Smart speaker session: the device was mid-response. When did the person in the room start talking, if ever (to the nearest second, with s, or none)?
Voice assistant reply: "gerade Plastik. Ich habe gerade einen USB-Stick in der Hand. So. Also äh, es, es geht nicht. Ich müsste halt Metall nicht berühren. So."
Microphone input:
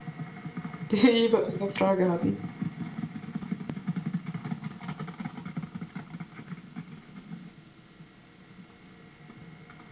1 s